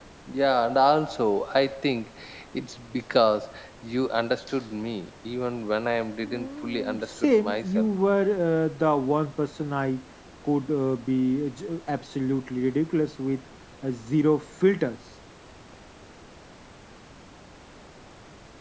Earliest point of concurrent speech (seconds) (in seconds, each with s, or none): 6.2 s